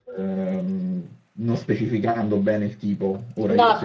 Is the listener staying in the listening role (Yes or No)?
No